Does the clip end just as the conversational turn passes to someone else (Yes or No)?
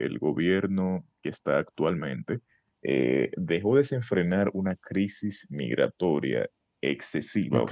No